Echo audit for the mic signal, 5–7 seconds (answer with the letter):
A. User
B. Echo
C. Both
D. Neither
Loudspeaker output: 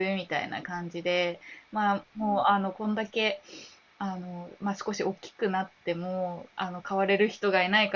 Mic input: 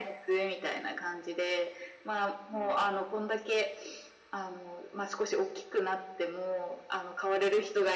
B